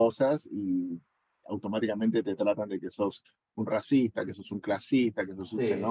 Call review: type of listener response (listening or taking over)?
listening